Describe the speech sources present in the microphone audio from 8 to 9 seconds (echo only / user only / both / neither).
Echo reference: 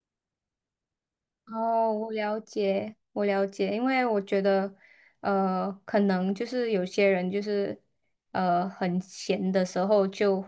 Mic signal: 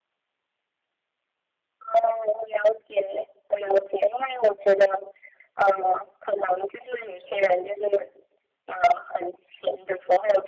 echo only